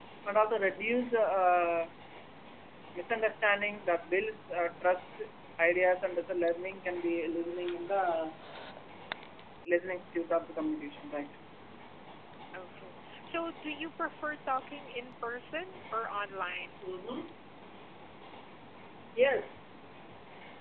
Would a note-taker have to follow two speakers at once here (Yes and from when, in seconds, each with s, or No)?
No